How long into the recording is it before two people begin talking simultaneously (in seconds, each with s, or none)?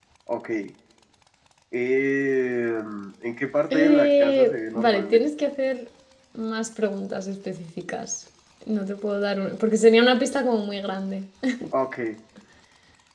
3.7 s